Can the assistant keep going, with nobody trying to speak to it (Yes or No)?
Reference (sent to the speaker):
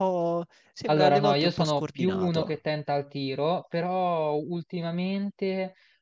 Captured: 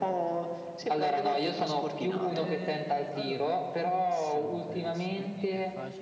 No